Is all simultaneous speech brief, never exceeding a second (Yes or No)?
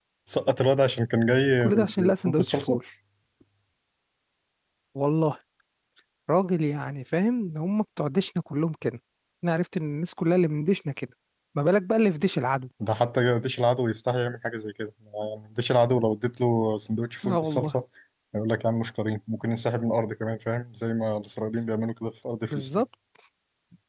No